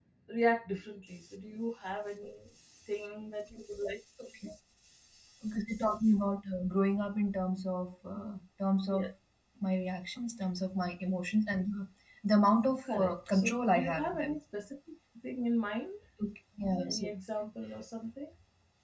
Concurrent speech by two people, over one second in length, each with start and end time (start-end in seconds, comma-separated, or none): 12.8-14.3